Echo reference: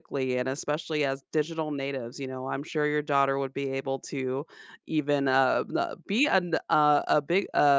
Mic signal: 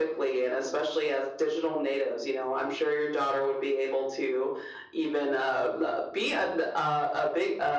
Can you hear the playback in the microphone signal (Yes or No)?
Yes